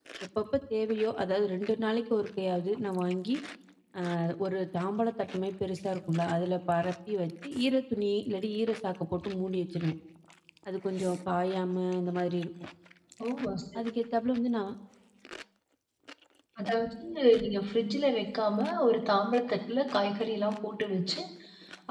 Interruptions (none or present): none